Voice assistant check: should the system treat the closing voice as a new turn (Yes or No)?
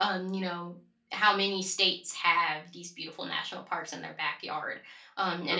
No